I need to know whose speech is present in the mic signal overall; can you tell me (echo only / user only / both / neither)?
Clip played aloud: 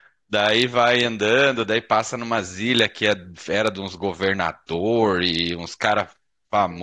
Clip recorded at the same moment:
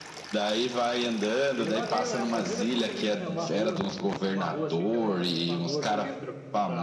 both